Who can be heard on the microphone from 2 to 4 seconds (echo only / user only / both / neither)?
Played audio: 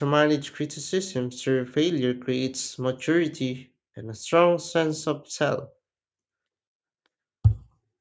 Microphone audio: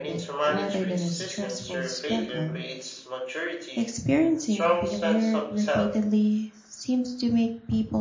both